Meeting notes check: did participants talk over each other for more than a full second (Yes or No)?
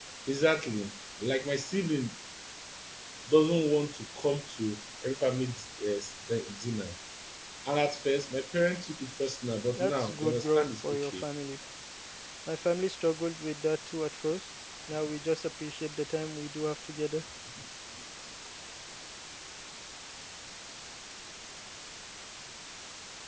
Yes